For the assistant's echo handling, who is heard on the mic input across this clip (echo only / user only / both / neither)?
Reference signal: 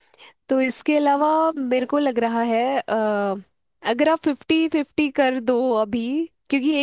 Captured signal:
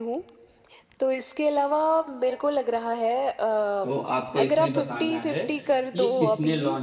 both